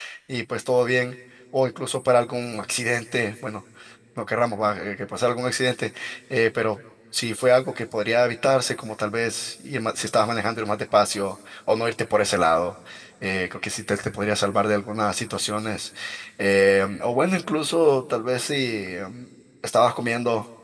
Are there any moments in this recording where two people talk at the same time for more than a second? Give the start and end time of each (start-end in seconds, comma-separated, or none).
none